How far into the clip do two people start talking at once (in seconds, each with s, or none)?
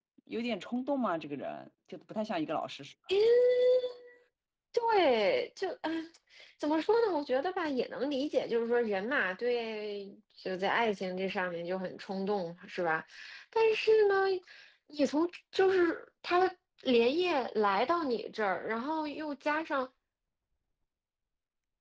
none